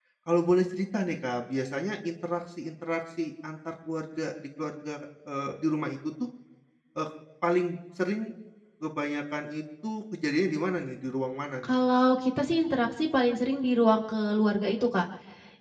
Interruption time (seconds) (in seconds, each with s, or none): none